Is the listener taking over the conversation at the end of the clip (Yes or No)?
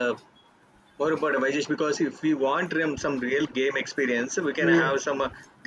No